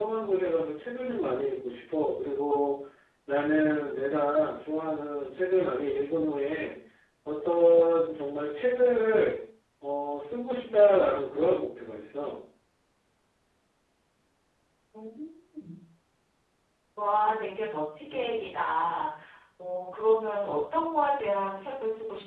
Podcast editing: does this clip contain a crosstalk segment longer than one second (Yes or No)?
No